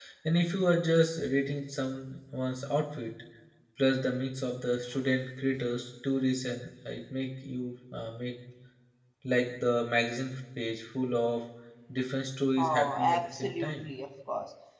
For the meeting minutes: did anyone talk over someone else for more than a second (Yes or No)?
Yes